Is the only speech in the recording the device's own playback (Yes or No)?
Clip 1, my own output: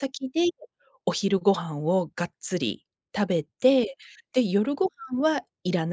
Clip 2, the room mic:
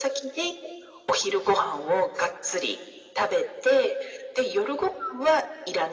Yes